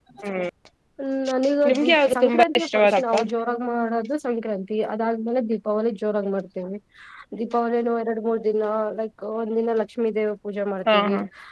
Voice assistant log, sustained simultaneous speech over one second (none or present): present